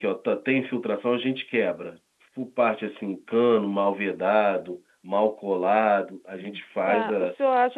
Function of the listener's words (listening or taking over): taking over